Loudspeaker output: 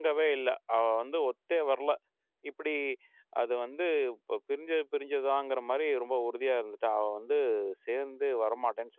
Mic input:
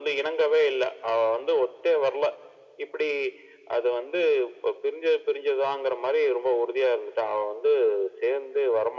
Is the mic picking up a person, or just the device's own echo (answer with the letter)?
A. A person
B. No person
B